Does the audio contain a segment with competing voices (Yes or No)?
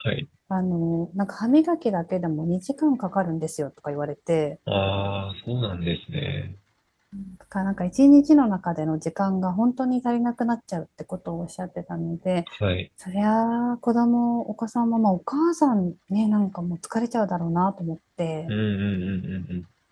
No